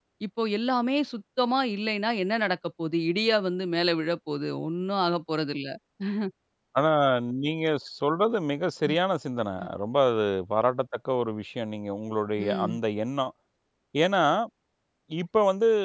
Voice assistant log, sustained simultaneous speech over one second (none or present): none